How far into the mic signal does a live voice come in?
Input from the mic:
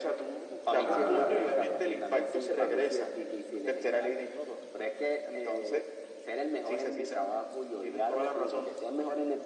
0.8 s

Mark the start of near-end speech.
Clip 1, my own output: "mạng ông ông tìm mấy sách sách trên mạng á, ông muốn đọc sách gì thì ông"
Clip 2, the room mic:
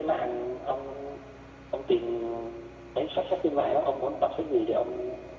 none

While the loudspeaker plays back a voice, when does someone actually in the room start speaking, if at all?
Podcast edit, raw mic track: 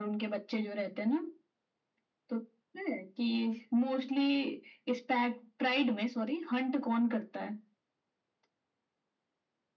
none

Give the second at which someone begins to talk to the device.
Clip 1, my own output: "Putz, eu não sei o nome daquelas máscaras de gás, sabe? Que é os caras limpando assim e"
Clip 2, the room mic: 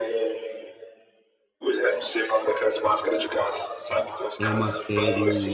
4.4 s

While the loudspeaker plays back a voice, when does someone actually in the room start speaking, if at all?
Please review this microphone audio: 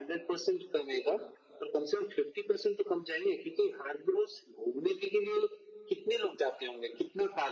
none

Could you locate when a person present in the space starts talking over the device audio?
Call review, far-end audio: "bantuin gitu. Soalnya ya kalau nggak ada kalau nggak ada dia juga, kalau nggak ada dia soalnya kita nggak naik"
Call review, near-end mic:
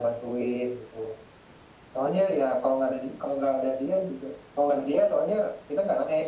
none

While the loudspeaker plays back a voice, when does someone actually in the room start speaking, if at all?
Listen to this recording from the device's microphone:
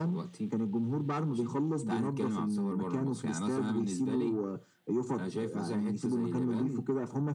none

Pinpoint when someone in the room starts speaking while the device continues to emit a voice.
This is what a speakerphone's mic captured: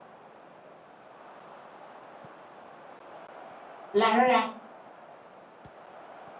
3.9 s

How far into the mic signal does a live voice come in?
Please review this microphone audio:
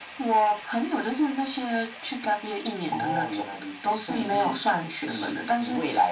none

